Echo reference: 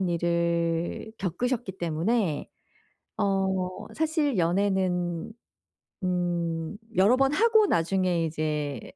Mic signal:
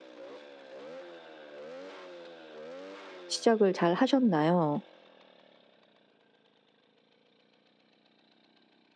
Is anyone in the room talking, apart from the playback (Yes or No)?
Yes